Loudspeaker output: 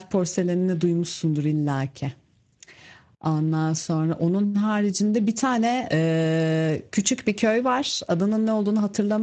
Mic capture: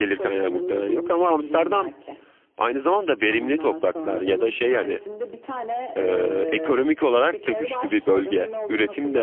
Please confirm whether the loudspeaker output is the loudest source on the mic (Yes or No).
No